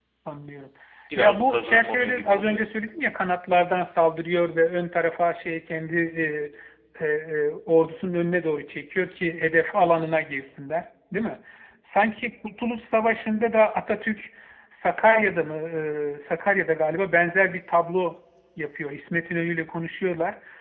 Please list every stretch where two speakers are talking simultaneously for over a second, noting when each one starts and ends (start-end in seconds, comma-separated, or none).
1.1-2.6